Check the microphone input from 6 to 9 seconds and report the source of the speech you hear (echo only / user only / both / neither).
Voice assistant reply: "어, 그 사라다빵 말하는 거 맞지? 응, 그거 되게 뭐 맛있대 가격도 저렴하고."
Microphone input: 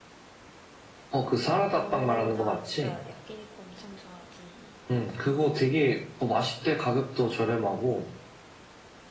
echo only